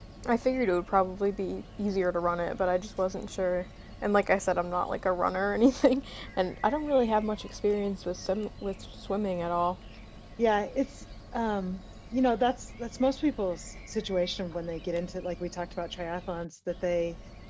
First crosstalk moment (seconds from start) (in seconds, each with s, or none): none